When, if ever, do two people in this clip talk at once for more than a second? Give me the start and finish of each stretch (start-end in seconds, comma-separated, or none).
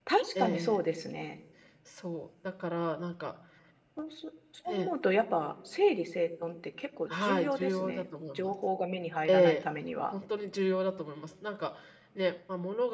7.1-8.5